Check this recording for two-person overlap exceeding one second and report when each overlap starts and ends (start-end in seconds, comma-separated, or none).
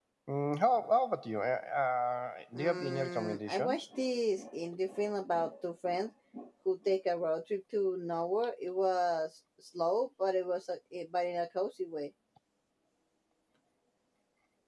2.5-3.9